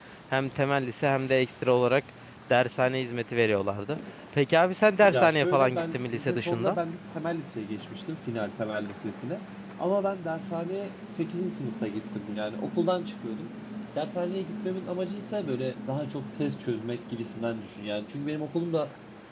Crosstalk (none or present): present